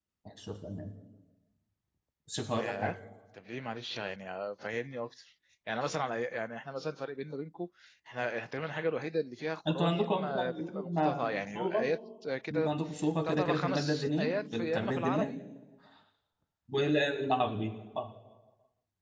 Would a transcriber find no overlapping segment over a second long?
No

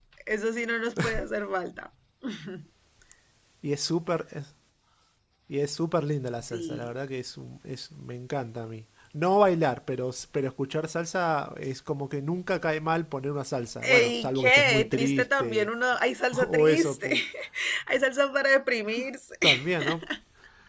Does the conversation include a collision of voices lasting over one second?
Yes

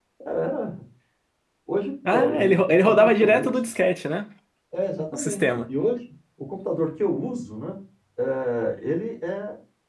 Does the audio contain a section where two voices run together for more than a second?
Yes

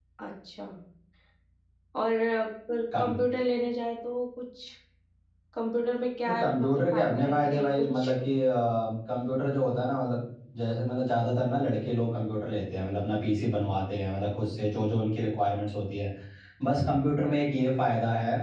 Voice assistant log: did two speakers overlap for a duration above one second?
Yes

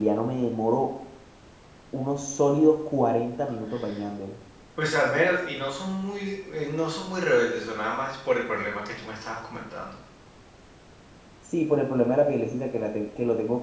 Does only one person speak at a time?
Yes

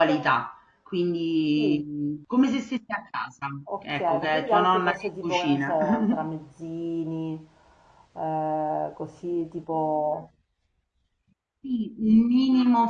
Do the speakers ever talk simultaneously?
Yes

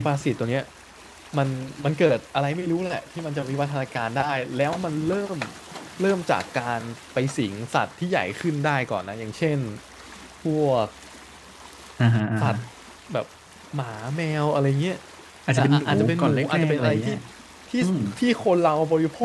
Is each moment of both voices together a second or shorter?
No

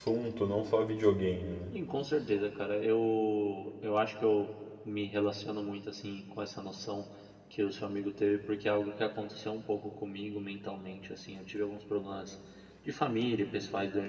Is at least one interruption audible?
No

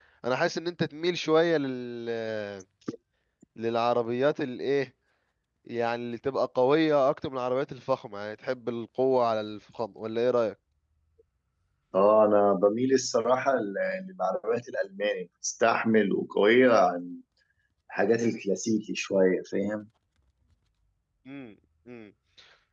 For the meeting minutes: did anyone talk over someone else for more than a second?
No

